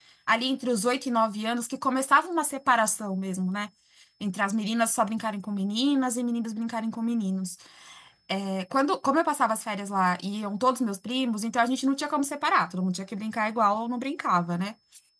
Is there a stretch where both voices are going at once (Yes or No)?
No